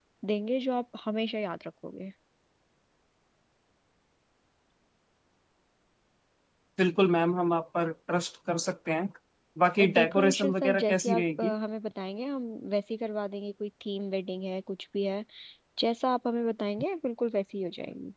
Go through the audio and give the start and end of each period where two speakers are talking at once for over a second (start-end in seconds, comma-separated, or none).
9.8-11.5